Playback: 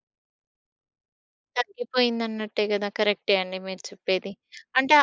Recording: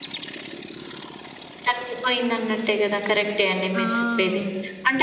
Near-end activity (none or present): present